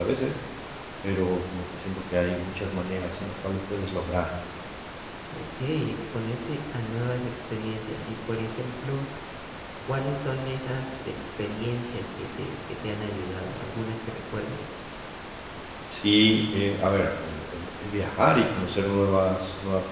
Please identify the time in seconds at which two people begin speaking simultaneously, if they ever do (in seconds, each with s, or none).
none